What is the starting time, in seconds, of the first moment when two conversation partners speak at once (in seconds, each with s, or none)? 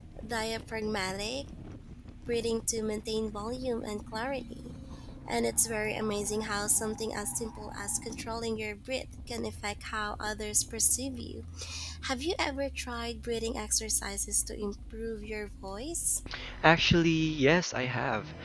none